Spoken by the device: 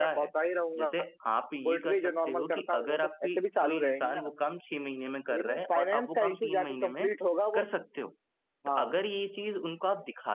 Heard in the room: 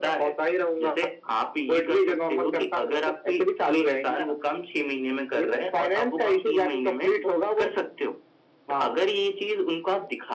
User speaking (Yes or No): No